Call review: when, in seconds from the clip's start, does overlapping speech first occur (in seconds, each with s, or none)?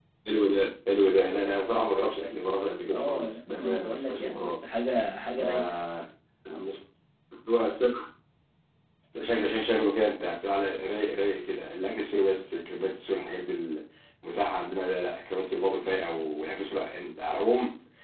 2.9 s